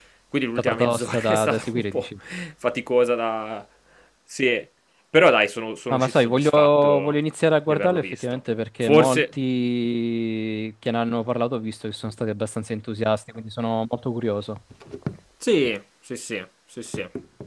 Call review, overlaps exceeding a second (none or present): present